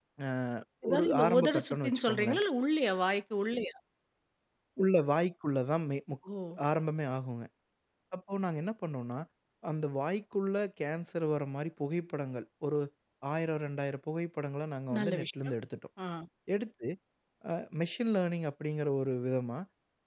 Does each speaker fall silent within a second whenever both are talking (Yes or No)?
No